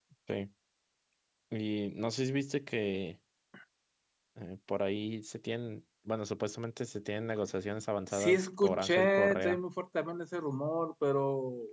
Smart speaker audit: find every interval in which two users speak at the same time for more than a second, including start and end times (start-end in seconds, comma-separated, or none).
8.1-9.6